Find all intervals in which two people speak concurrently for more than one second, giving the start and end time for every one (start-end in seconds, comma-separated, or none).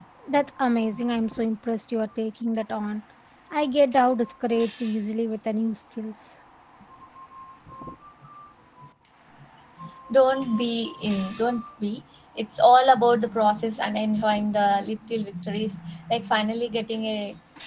none